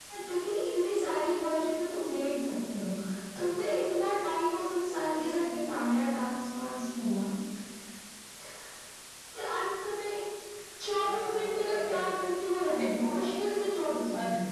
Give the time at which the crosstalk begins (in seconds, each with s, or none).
11.0 s